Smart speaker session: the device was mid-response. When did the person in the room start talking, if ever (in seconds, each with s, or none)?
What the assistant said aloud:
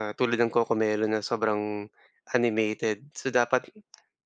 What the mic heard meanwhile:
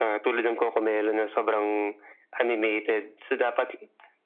none